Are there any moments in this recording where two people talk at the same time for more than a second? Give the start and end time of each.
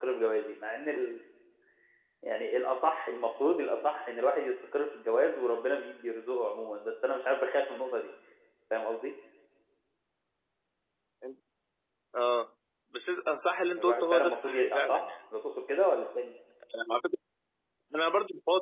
13.8-15.0

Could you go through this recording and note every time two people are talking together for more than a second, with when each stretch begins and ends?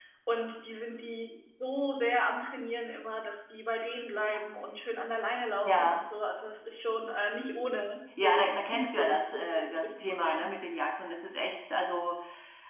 8.2-10.5

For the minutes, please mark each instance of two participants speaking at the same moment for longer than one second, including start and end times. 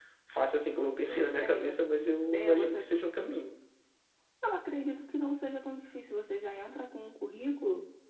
none

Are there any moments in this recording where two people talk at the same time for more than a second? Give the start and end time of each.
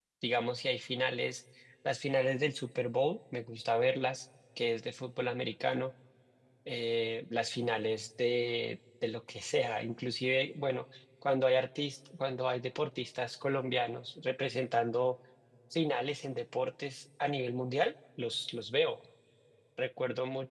none

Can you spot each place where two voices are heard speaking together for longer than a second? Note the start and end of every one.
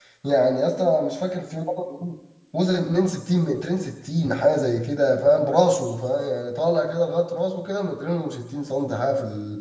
none

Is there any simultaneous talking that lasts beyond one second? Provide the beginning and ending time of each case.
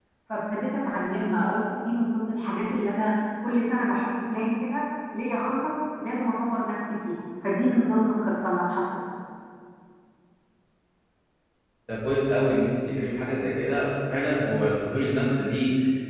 none

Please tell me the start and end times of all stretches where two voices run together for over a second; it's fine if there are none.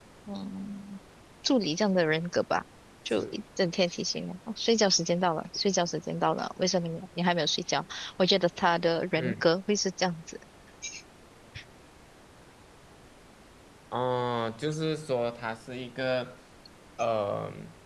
none

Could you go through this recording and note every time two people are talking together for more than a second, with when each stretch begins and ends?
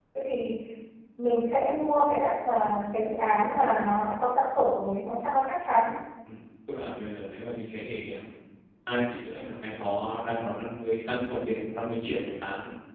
none

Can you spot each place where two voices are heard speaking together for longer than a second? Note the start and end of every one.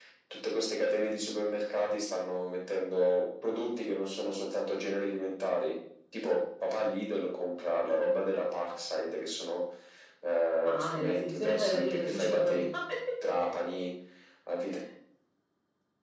10.7-12.6

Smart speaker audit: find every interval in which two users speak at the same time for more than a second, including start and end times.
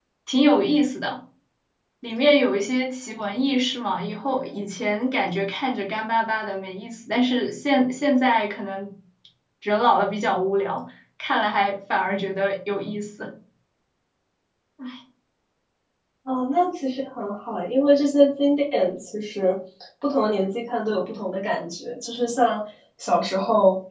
none

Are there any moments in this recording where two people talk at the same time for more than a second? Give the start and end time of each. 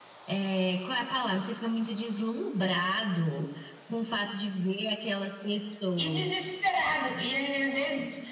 none

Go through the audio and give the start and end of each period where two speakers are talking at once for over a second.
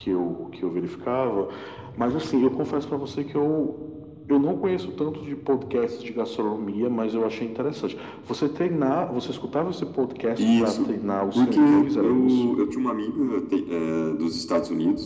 11.3-12.6

